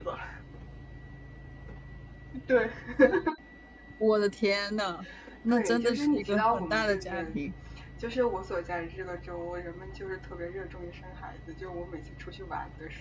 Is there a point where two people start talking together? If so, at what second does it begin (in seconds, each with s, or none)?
5.5 s